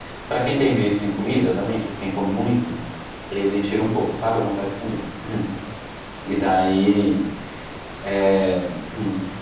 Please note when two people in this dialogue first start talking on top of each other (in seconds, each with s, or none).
none